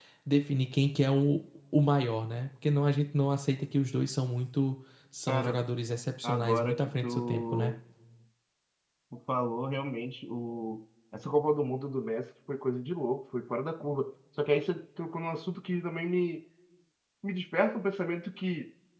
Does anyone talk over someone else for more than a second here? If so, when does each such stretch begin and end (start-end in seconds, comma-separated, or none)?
6.2-7.8